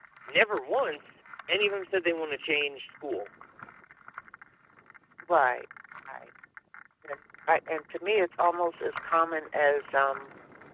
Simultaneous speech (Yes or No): No